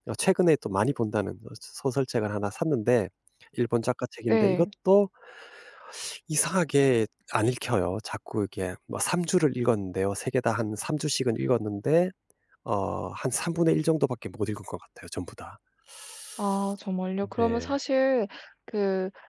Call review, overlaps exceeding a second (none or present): none